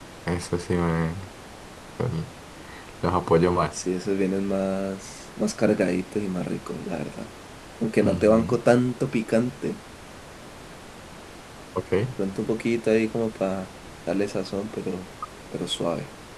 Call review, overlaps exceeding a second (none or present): none